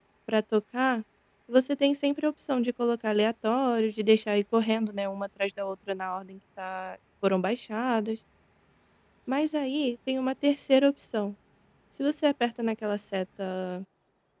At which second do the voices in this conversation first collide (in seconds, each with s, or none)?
none